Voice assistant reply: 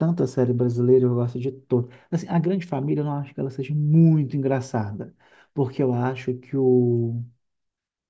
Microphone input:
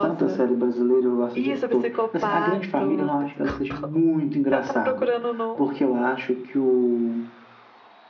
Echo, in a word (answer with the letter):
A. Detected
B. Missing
A